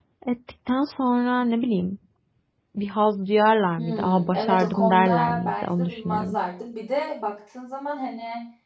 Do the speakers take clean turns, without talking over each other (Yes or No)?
No